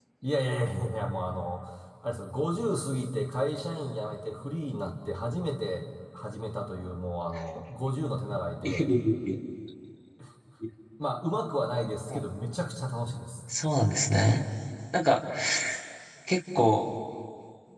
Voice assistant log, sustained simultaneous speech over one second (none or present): none